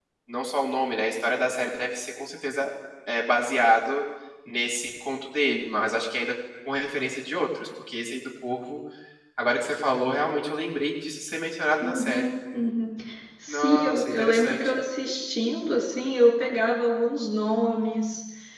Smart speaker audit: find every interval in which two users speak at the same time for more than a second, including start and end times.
13.5-14.8

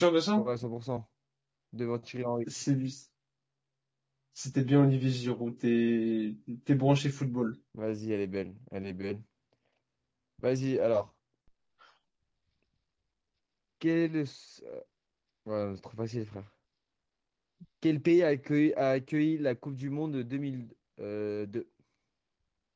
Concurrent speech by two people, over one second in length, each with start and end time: none

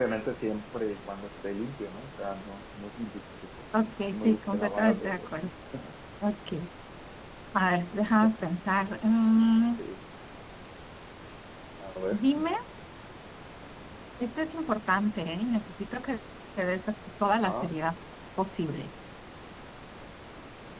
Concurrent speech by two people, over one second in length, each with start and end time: 4.1-5.5

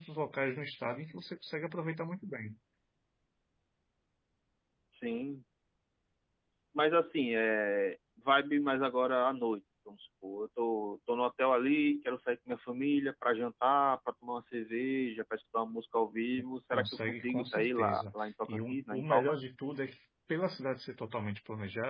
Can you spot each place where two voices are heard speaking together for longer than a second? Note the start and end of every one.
16.7-19.4

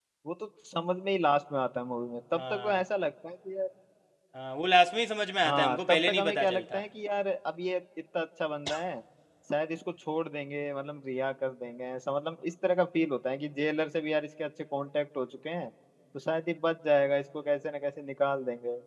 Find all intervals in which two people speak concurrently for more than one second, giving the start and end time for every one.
5.5-6.8

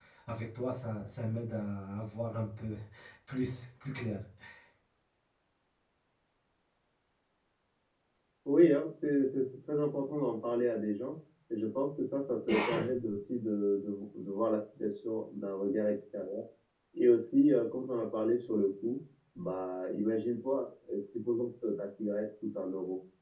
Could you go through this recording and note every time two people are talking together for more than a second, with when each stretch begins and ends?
none

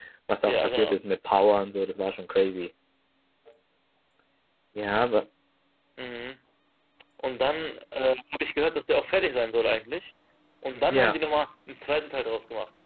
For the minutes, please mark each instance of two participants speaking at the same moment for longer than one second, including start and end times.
none

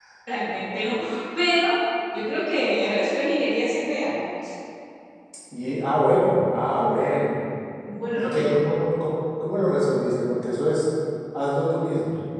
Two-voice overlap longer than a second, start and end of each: none

